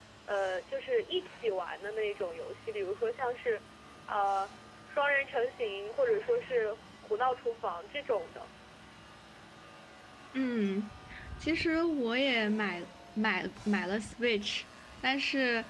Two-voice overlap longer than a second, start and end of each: none

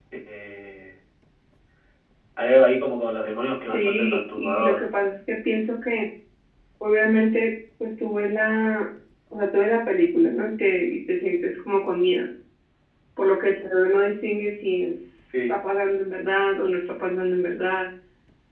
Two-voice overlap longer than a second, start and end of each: 3.6-4.9

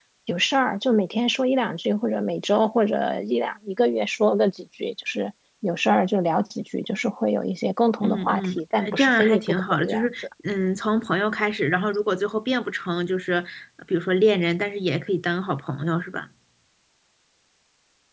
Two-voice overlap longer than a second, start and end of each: 8.0-10.2

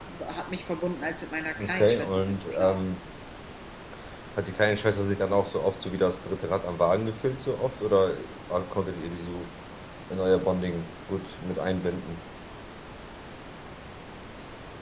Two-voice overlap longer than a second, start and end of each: 1.6-2.8

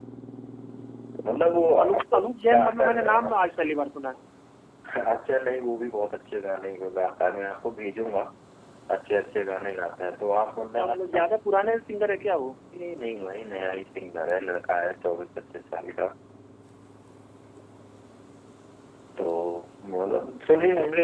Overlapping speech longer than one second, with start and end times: 1.8-3.5

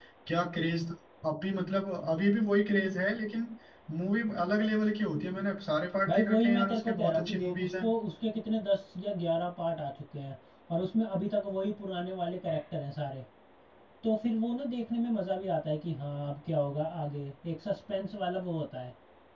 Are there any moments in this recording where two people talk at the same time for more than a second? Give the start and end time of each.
6.1-7.8

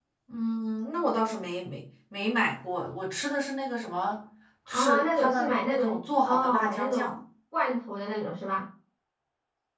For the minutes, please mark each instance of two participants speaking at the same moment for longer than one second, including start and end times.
4.7-7.1

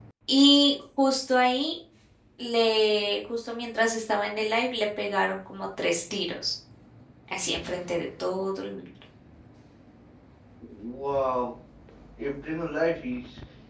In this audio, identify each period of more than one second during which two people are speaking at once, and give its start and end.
none

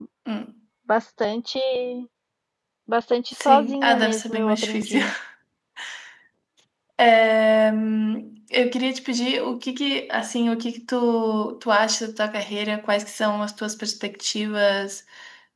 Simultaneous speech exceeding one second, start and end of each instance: 3.4-5.0

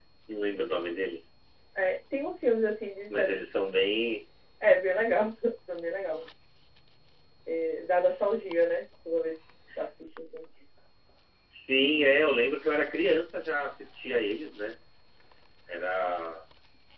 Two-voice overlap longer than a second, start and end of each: none

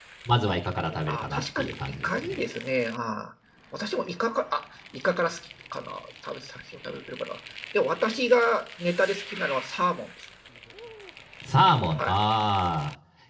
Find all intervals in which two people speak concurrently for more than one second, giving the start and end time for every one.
1.1-2.4

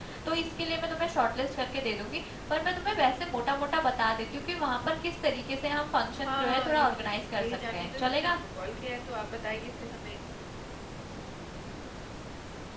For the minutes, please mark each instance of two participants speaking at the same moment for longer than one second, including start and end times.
6.2-8.3

